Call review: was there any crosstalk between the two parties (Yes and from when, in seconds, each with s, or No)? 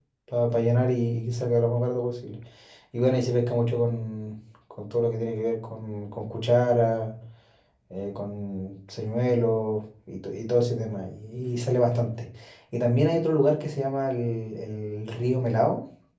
No